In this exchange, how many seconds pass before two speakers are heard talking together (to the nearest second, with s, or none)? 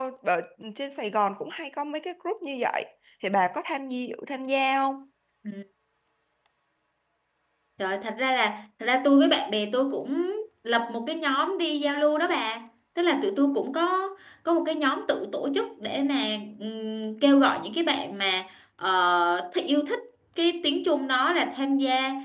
none